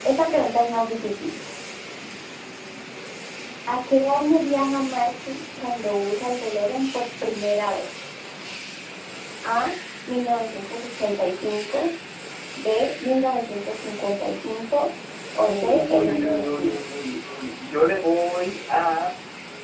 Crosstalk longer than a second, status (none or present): present